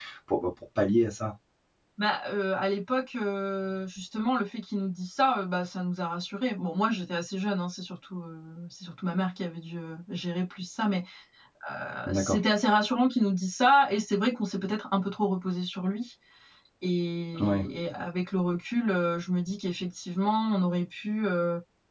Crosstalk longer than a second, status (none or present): none